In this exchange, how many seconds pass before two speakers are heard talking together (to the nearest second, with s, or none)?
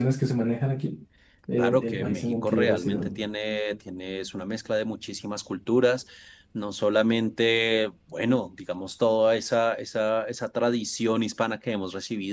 2 s